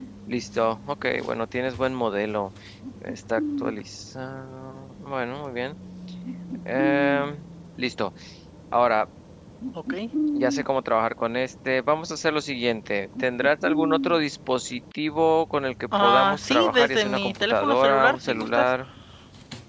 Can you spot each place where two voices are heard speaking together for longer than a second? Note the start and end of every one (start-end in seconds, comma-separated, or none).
16.0-18.6